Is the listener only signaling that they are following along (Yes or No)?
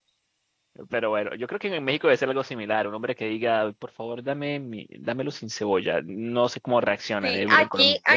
No